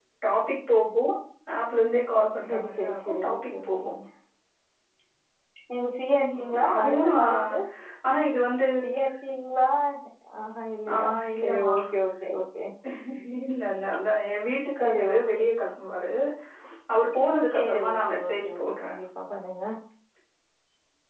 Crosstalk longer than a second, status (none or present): present